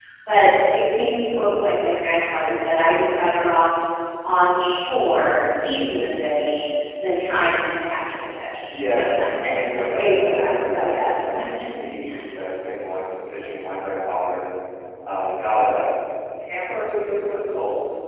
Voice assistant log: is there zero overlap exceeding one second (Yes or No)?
No